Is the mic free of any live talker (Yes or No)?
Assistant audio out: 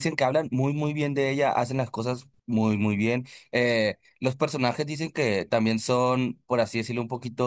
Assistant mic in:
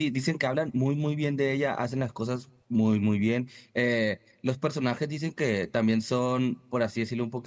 Yes